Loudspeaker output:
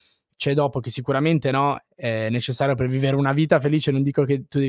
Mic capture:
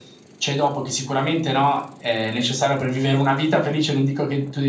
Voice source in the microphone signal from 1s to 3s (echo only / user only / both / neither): echo only